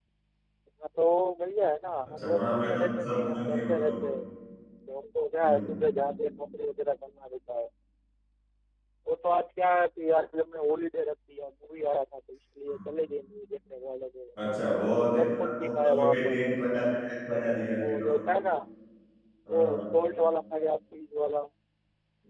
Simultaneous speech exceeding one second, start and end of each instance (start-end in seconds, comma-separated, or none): 2.1-4.0, 15.2-16.4